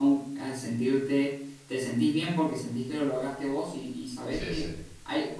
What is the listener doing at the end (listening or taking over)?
listening